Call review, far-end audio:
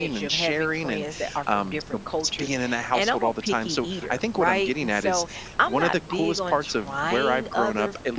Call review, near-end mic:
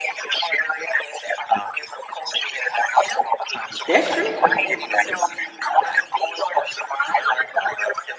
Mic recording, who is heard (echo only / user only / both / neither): both